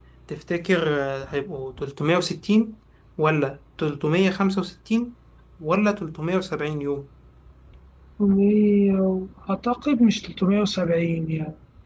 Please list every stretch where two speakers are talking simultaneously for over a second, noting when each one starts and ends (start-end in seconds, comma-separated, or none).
none